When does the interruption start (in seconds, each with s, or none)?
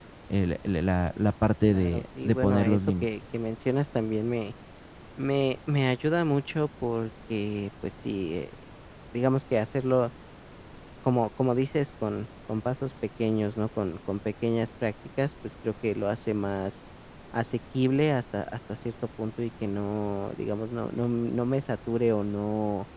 1.7 s